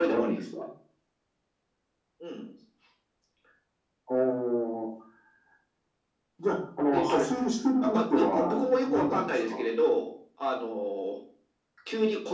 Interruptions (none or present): present